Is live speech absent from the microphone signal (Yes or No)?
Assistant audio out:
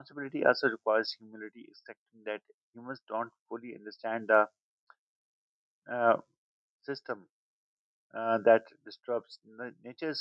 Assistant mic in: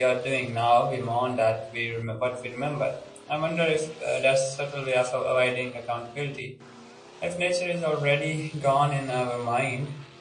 No